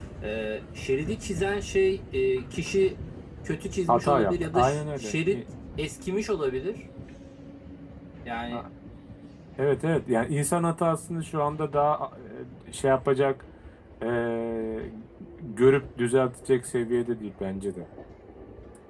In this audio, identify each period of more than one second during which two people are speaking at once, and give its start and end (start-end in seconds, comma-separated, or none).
3.9-5.4